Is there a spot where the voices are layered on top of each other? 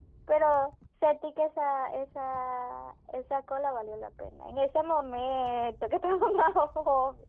No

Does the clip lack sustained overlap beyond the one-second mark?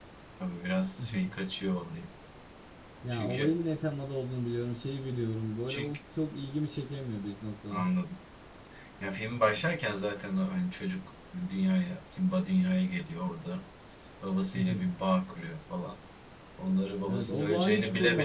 No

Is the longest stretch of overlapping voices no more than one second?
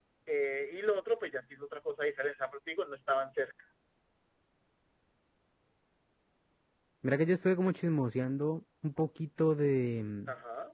Yes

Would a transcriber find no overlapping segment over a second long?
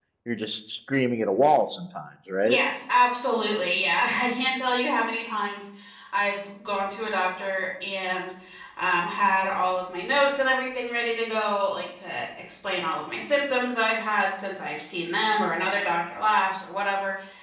Yes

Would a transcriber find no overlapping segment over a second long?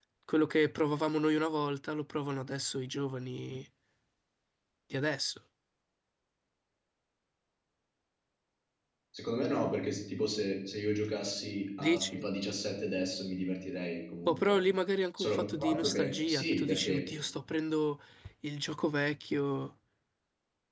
No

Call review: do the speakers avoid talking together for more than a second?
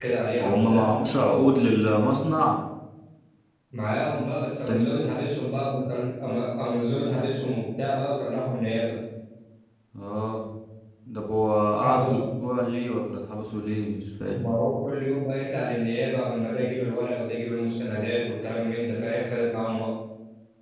Yes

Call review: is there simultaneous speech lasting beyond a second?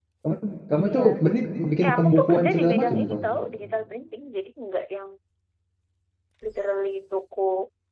Yes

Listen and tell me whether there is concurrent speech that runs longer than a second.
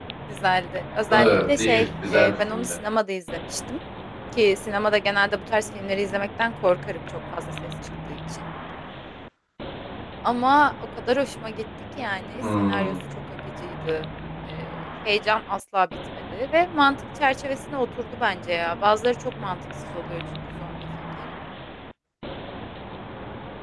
Yes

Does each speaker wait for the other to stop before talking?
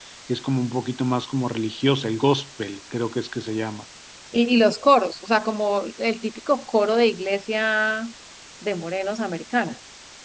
Yes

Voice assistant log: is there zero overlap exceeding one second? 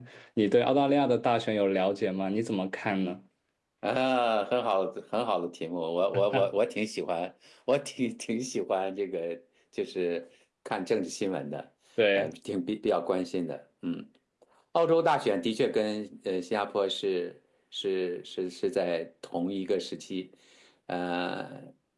Yes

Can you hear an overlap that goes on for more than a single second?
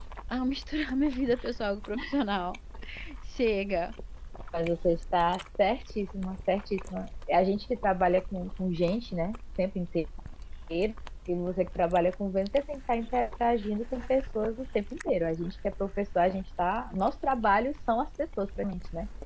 No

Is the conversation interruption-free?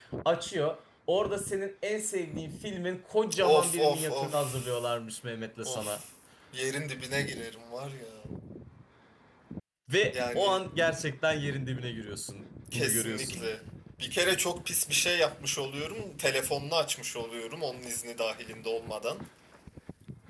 No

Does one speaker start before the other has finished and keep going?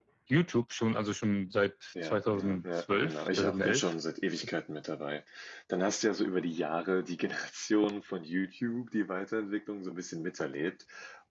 Yes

